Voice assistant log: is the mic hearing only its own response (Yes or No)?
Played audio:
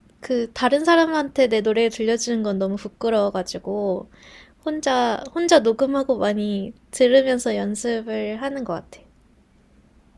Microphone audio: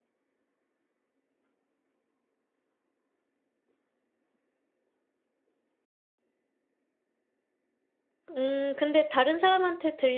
No